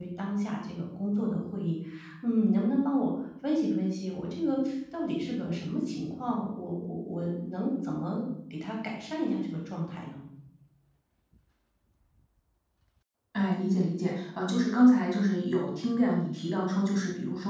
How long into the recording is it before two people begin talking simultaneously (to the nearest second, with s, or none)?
none